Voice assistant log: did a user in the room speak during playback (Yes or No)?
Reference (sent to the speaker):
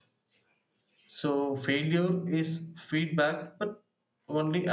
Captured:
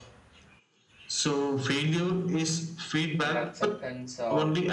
Yes